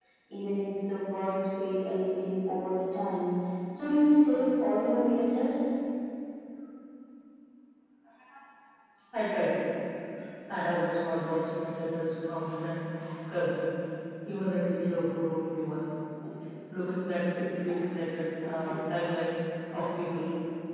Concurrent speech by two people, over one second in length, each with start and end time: none

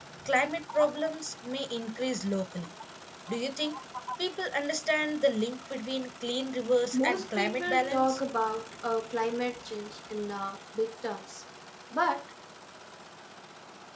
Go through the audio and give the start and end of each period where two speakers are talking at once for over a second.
6.9-8.2

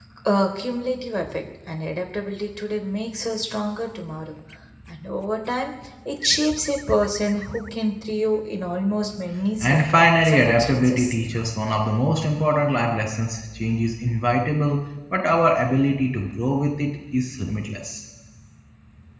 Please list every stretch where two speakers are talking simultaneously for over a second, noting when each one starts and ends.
9.6-11.2

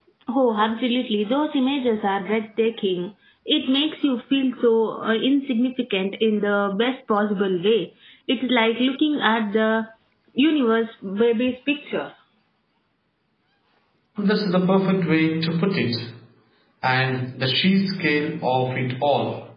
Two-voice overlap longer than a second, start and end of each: none

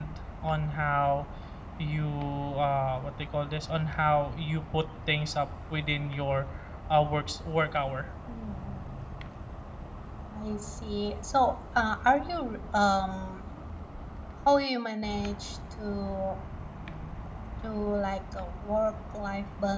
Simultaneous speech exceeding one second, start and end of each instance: none

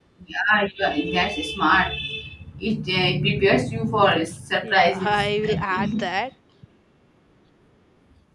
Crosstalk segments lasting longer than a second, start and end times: 4.6-6.0

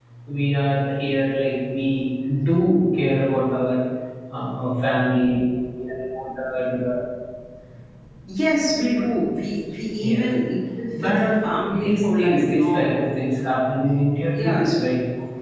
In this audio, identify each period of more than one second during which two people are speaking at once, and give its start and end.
11.7-12.9

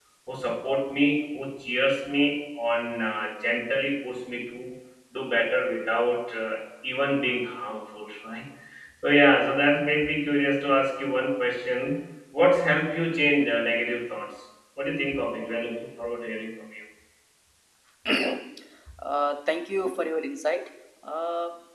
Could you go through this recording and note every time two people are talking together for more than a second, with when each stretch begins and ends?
none

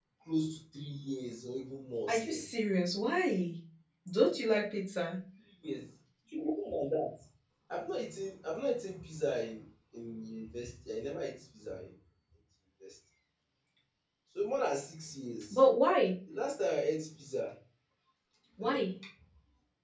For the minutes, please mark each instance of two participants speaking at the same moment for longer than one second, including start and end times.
none

